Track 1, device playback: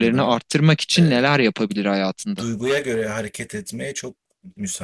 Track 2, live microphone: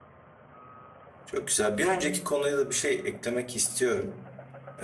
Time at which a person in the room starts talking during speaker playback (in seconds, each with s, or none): 1.2 s